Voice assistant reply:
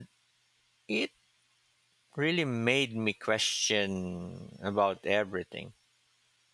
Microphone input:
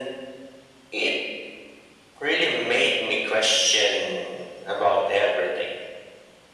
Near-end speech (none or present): none